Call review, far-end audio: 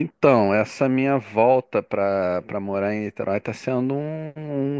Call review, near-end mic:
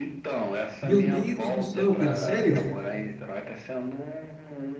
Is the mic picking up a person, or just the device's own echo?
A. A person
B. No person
A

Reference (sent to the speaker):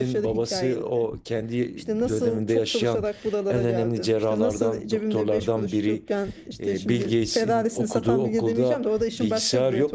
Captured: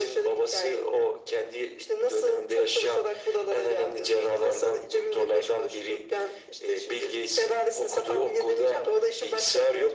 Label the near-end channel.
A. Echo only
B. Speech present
A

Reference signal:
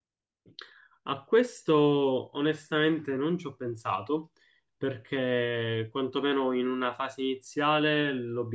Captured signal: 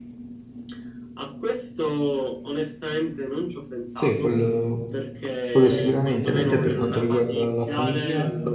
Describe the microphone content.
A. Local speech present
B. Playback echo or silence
A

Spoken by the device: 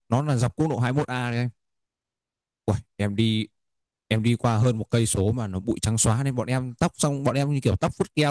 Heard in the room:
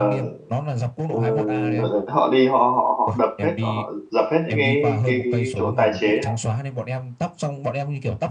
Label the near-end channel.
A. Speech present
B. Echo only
A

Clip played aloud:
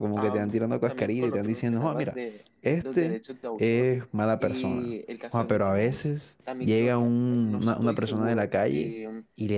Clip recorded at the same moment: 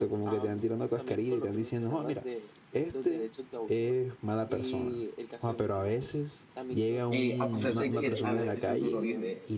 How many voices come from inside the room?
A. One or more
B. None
A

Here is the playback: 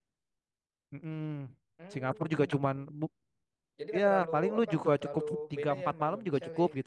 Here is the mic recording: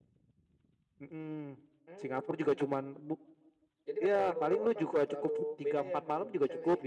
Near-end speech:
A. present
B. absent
B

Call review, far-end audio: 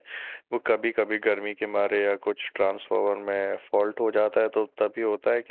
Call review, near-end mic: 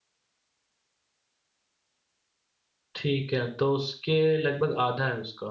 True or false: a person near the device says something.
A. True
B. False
A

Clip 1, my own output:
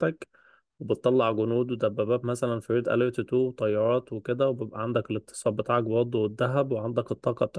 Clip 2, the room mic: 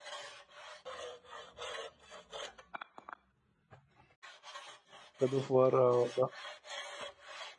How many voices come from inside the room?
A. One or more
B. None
A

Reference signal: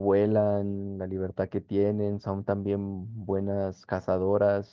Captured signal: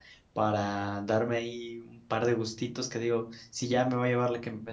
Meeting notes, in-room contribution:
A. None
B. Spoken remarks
B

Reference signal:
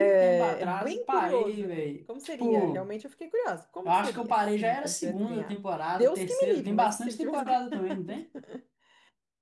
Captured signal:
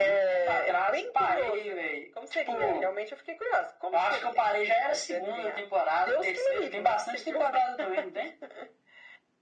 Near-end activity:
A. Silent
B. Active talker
A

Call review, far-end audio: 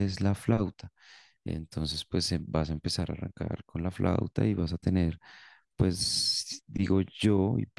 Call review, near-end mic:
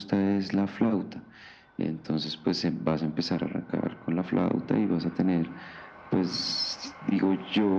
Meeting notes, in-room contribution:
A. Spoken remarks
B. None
B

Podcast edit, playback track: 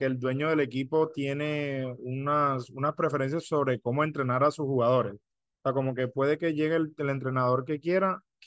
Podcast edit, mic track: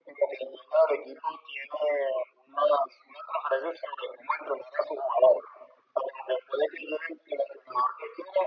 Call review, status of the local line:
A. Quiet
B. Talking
A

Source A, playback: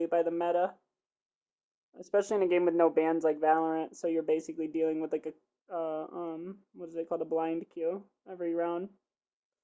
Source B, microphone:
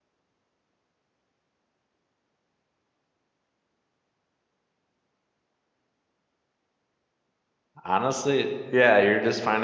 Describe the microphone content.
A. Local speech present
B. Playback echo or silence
A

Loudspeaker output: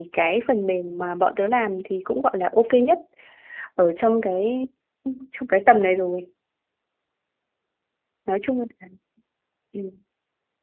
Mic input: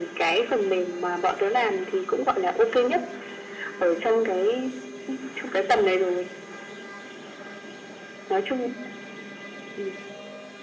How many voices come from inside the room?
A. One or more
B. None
B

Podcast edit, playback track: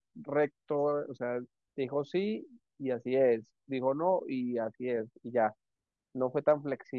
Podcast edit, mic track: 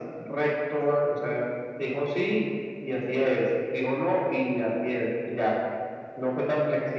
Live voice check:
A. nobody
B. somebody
A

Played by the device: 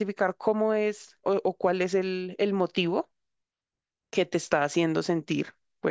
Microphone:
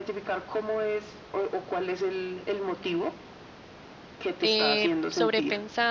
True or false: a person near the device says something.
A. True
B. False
A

